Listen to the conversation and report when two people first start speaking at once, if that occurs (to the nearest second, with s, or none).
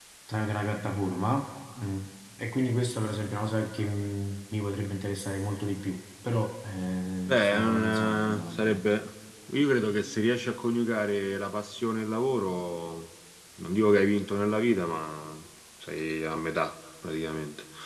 7 s